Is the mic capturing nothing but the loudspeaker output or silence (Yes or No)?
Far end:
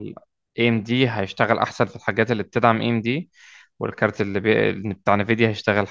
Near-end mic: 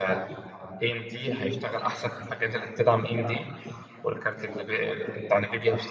Yes